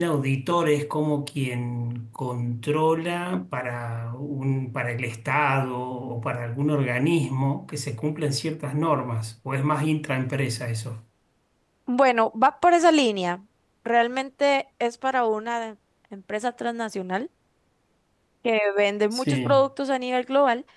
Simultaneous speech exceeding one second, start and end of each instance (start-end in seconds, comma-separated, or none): none